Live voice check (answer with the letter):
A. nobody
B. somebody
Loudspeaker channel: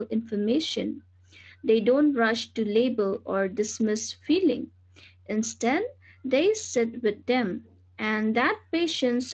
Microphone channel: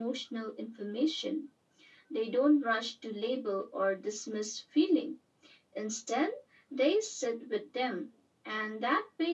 A